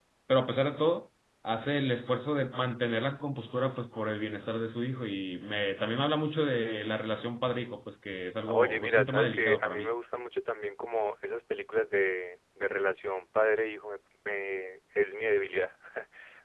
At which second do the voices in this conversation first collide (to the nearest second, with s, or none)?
8 s